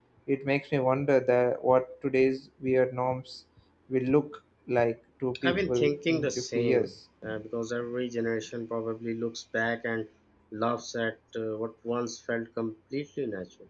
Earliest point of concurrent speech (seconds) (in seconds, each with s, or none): 5.3 s